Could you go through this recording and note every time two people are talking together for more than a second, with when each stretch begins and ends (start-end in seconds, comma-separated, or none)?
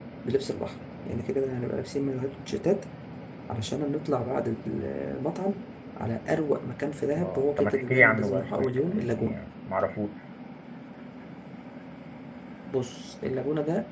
7.1-9.4